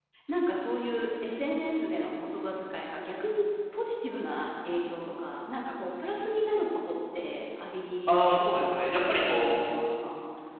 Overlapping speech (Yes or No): Yes